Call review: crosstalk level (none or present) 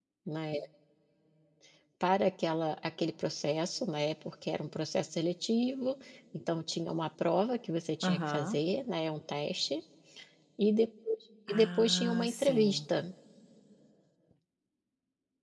present